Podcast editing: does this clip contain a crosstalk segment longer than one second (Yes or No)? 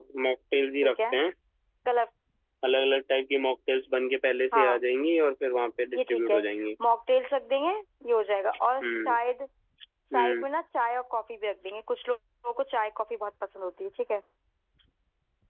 No